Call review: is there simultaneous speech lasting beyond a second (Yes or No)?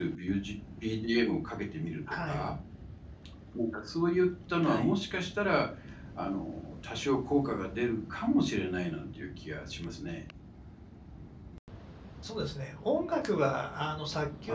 No